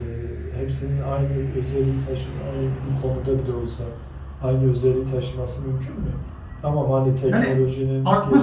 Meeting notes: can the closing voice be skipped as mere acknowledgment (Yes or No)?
No